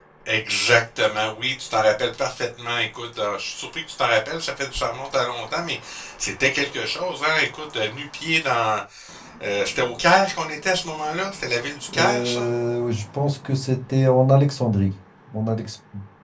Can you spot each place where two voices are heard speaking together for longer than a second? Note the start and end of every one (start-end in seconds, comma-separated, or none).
none